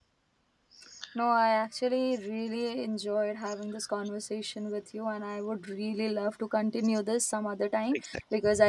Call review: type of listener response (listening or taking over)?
listening